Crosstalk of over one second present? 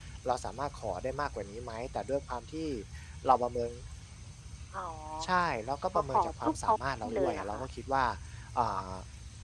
Yes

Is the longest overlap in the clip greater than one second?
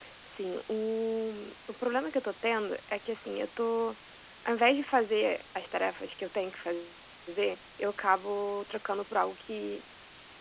No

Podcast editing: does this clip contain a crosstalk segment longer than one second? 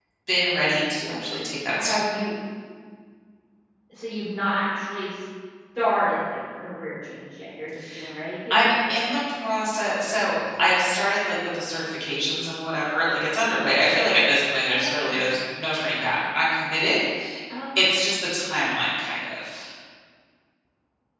No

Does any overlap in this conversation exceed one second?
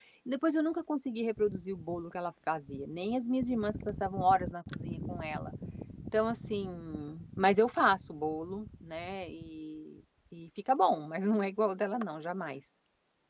No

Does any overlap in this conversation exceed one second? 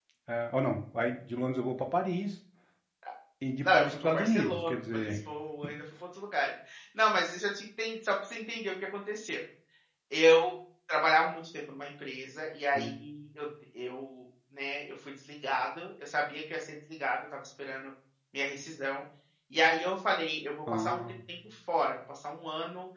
Yes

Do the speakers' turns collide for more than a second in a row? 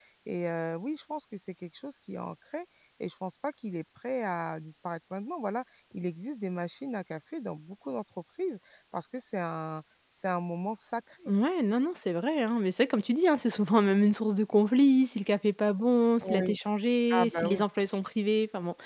No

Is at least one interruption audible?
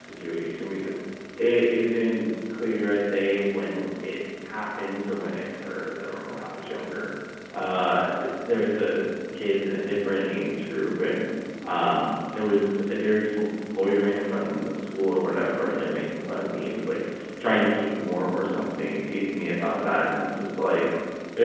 No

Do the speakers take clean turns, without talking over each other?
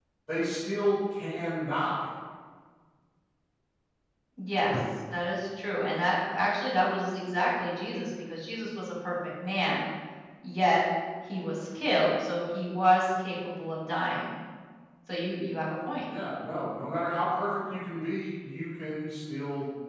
Yes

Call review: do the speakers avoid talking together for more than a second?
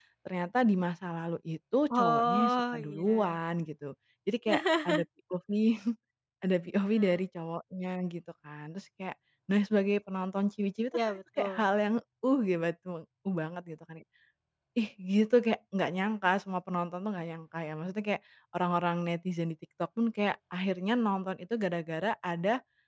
No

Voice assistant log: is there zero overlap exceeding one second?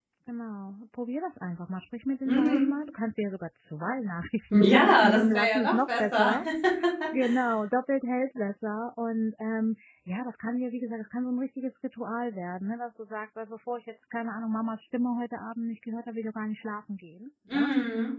No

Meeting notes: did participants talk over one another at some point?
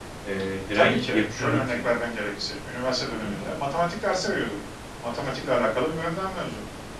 Yes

